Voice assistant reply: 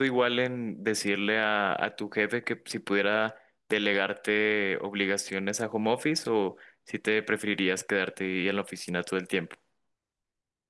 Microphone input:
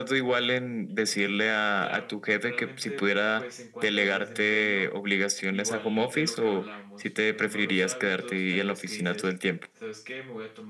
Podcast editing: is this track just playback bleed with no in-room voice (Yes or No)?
No